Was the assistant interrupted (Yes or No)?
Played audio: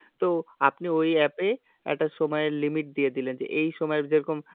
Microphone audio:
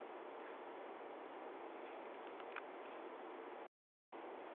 No